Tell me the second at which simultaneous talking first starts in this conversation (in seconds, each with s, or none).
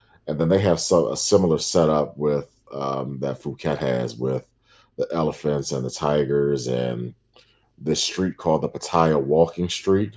none